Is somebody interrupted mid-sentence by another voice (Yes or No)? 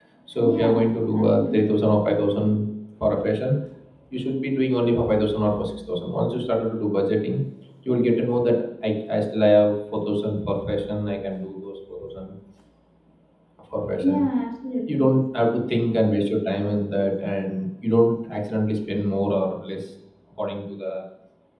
Yes